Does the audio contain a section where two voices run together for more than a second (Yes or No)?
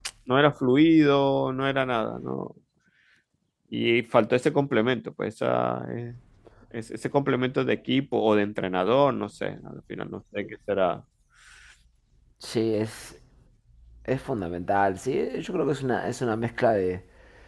No